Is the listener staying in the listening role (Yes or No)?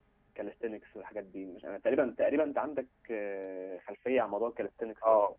No